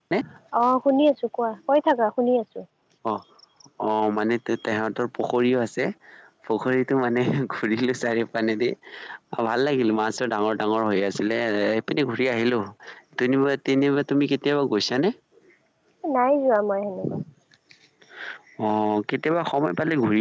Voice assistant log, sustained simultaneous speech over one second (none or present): none